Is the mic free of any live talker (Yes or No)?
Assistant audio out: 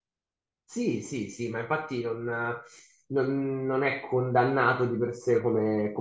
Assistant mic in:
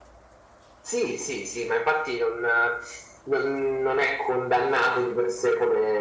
Yes